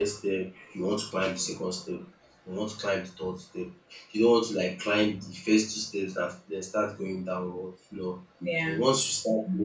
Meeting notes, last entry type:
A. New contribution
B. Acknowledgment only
B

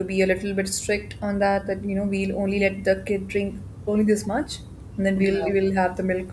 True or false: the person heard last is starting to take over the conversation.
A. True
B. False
B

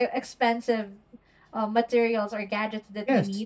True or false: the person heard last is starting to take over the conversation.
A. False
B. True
A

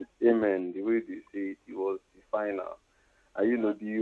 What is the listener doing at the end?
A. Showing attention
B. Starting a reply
A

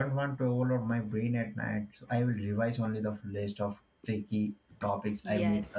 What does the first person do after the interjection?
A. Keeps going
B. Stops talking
B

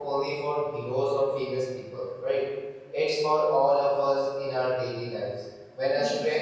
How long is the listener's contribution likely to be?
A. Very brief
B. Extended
A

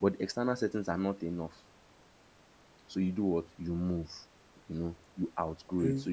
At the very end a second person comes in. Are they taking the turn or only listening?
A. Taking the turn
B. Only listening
B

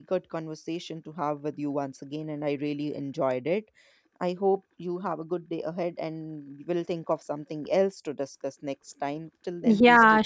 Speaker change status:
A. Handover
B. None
A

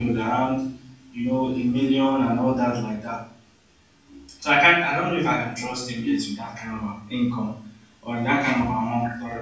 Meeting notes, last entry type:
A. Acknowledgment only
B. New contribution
A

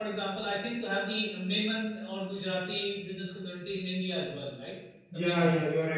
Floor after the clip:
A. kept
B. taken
B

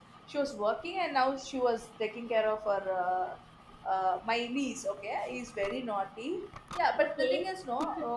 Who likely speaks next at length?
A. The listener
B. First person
B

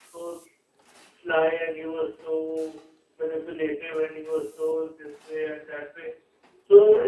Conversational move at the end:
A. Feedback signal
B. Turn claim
A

